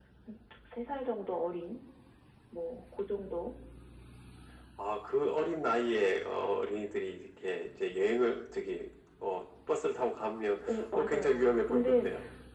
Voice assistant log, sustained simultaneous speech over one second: present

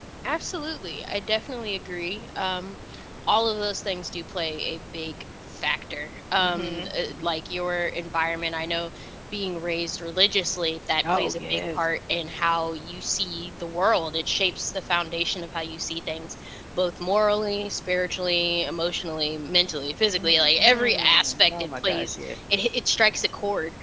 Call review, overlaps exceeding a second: present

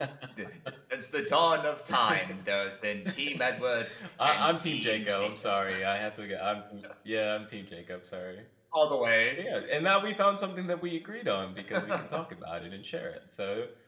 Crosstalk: present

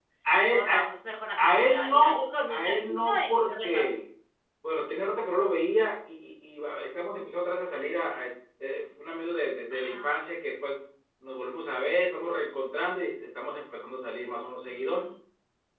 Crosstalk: present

